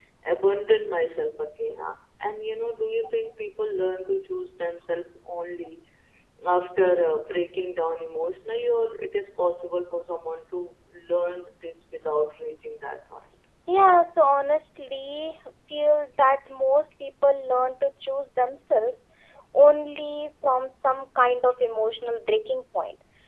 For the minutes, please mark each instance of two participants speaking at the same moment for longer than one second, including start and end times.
none

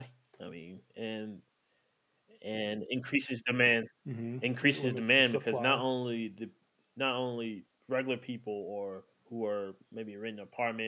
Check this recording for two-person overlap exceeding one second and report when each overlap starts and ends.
4.4-5.9

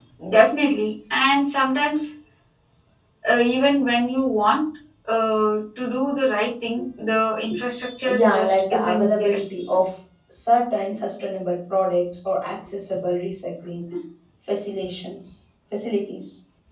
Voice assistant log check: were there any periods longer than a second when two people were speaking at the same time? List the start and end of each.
8.0-9.4

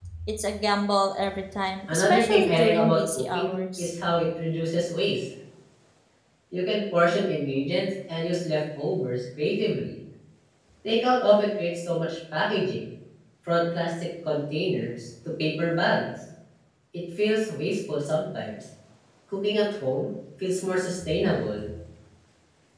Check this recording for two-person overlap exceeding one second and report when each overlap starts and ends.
1.9-3.9

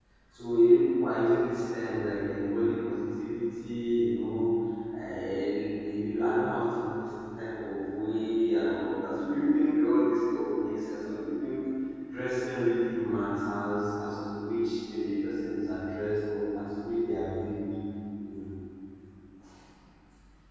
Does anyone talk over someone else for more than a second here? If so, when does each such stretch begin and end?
none

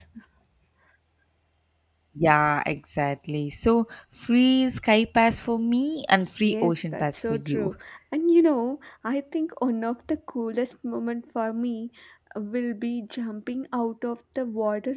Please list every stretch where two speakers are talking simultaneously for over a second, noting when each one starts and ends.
6.4-7.7

